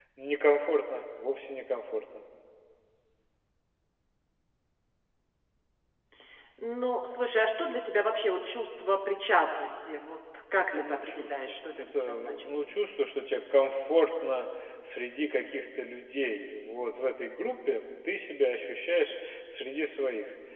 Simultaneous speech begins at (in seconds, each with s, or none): 10.6 s